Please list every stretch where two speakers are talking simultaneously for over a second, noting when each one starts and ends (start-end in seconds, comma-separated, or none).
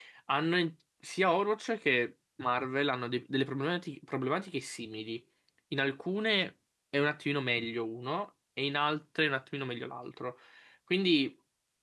none